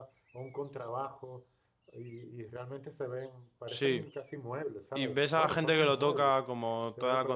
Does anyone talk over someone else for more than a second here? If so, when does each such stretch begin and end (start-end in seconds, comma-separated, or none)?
5.0-6.3